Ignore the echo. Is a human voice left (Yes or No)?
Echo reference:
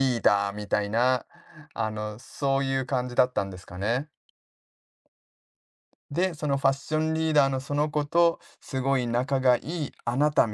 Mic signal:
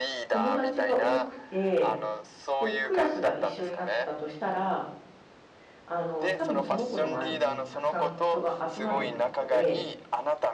Yes